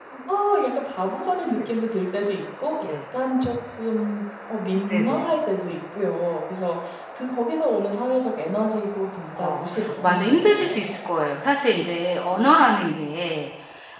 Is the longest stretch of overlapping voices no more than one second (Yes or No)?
No